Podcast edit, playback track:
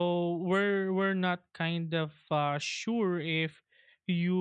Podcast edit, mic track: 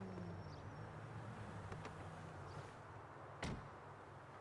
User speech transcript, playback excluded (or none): none